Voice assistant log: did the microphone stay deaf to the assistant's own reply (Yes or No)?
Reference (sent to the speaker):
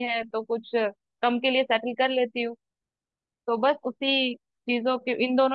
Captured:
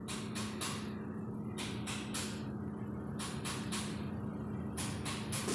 Yes